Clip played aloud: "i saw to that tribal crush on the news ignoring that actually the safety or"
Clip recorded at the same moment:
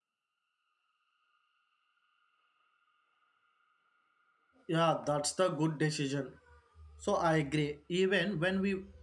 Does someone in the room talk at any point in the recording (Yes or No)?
Yes